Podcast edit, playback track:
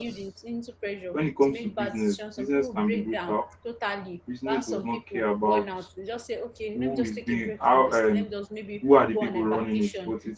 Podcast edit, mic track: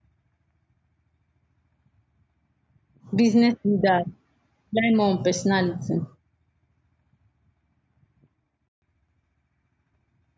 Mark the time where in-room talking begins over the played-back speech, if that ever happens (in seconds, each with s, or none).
3.1 s